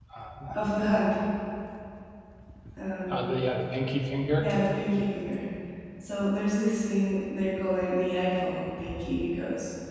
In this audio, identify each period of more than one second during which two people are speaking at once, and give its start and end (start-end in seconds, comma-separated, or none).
none